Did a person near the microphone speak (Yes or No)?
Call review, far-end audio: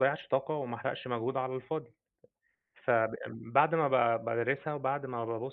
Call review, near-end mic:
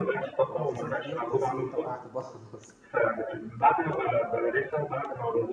Yes